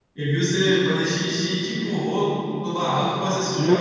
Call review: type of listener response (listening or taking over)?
taking over